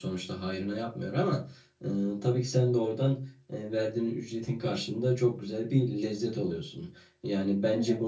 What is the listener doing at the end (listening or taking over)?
listening